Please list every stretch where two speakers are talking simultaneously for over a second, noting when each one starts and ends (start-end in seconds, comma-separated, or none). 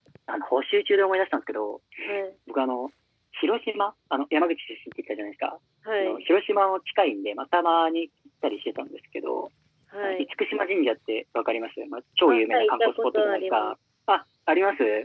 12.3-13.7